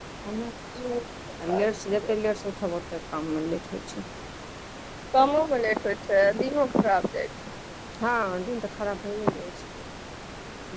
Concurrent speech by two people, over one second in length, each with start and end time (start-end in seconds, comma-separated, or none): none